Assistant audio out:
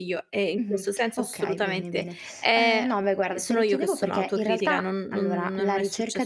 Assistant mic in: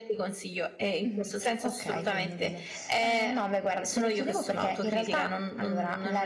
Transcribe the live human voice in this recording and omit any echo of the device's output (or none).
none